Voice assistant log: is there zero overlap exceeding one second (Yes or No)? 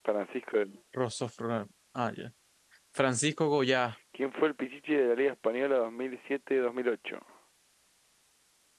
Yes